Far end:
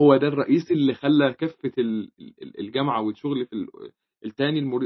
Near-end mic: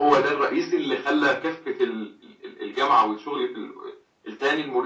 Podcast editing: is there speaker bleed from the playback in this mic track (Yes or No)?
Yes